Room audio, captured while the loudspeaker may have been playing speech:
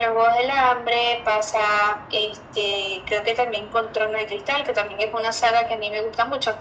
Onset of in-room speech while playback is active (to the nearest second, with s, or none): none